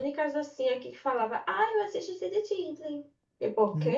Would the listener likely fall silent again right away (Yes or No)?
No